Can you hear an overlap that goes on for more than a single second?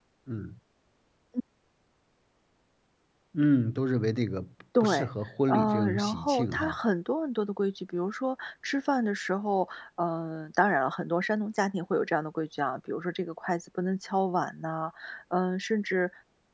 Yes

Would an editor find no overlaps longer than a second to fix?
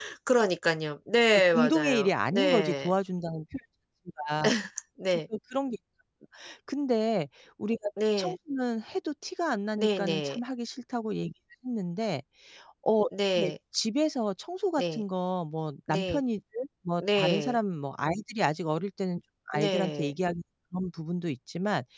No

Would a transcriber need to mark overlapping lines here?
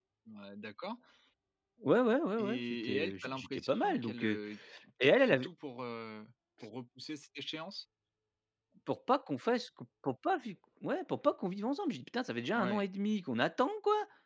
Yes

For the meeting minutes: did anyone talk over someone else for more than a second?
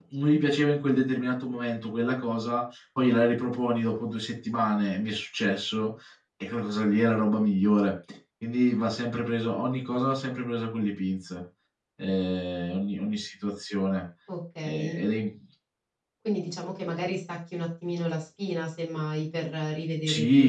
No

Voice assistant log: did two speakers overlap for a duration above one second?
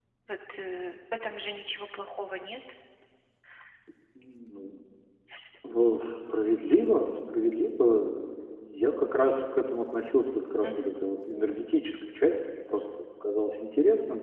No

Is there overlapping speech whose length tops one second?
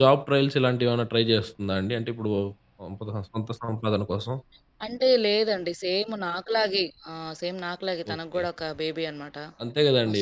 No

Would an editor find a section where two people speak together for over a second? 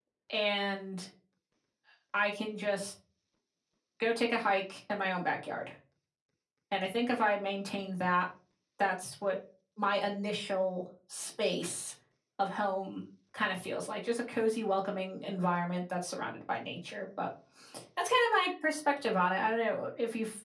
No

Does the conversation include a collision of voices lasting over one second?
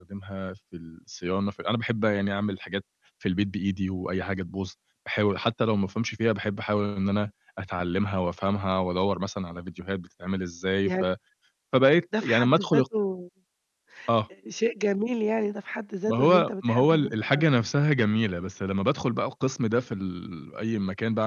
Yes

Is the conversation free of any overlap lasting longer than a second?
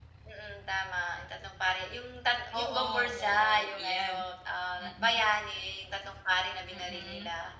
No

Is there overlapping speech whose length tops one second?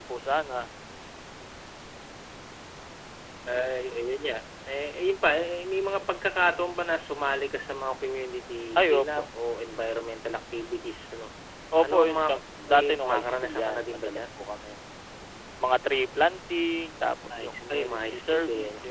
Yes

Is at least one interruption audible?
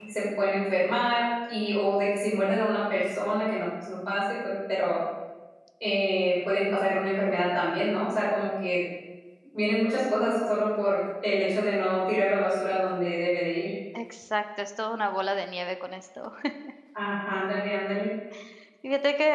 No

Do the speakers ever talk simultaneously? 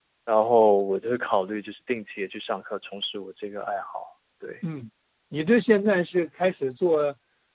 No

